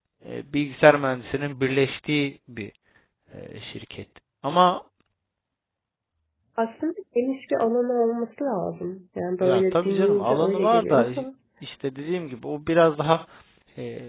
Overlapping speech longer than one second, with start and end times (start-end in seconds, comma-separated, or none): 9.4-11.1